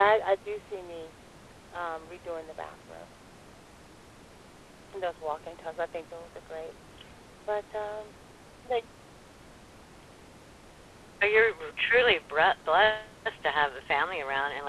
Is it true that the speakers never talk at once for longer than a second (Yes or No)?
Yes